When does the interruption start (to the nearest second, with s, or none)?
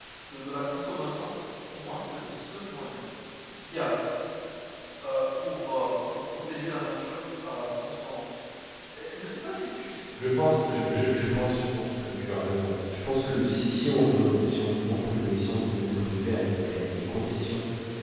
none